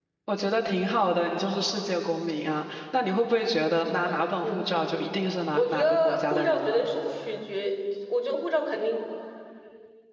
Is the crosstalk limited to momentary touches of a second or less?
No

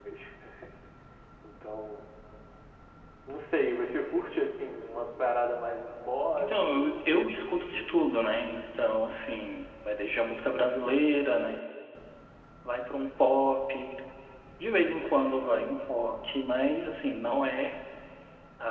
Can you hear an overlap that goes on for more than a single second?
Yes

